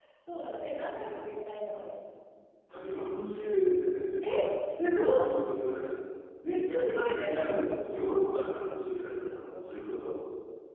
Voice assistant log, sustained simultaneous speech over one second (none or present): none